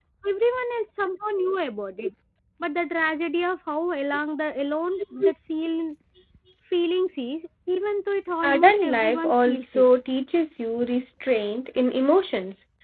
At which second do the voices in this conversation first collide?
8.4 s

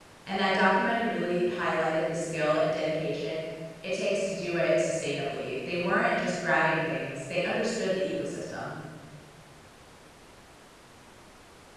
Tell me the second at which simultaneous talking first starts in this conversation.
none

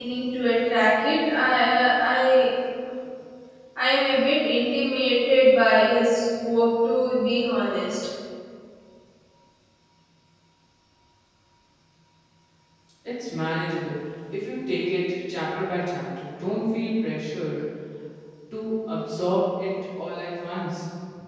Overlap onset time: none

